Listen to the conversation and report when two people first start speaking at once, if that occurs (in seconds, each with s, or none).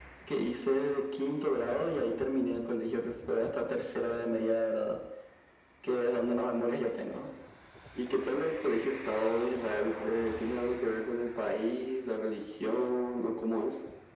none